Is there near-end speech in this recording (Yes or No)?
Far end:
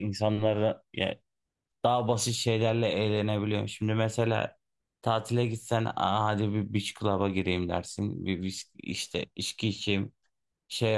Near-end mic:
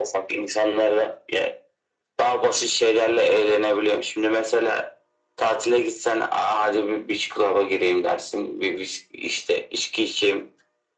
No